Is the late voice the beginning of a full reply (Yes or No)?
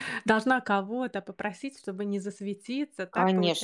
Yes